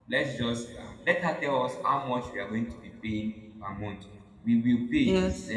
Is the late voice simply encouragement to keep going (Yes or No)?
Yes